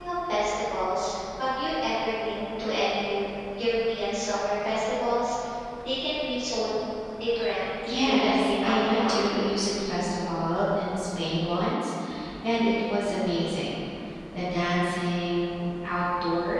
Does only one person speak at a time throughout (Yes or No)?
No